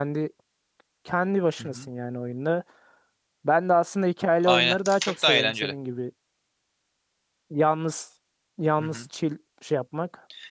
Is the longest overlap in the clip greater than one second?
Yes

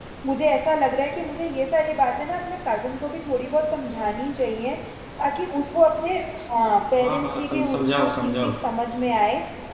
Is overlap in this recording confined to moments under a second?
No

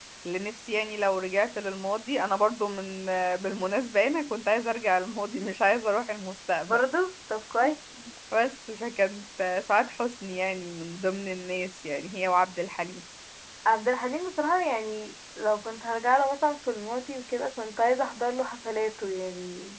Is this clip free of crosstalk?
Yes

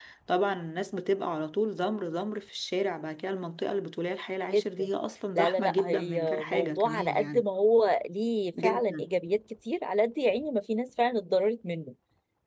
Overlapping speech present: Yes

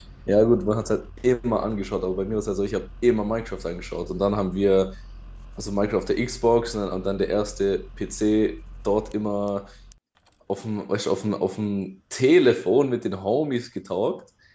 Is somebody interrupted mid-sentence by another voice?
No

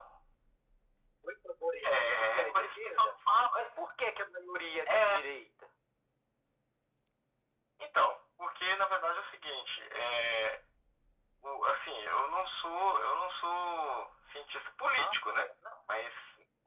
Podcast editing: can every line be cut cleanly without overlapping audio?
No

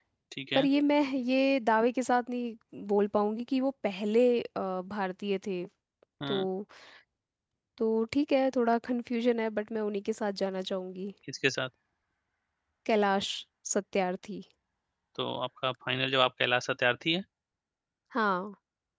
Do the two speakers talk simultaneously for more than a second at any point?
No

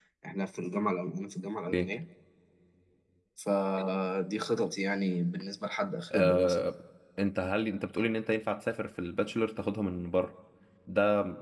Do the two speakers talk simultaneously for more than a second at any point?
No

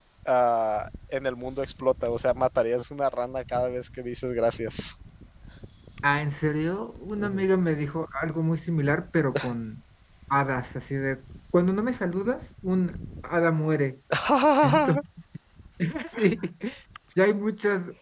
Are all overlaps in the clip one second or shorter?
Yes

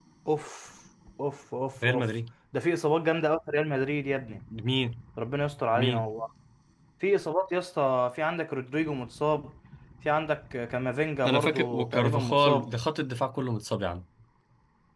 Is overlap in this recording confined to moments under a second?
No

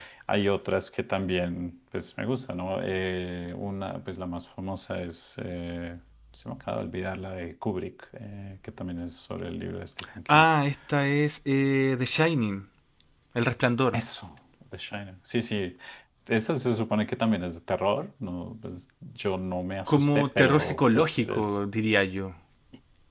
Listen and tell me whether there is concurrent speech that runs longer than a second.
Yes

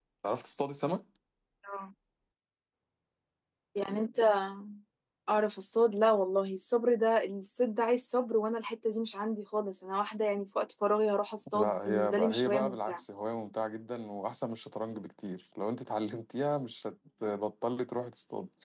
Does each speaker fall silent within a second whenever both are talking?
No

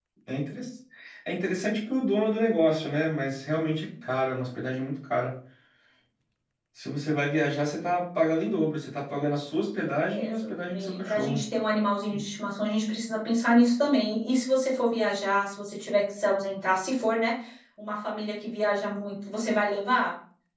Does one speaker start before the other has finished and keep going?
Yes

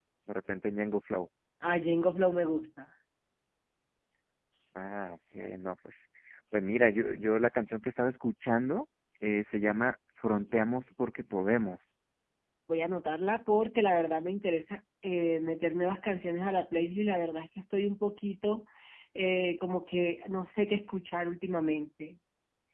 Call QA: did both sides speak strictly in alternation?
Yes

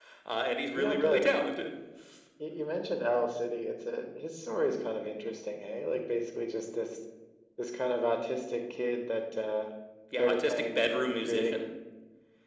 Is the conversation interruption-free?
No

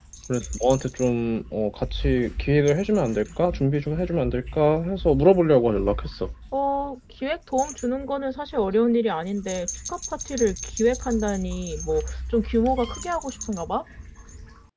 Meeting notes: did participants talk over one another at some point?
No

